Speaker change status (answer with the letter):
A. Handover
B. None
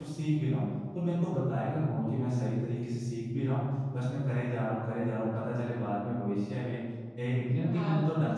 B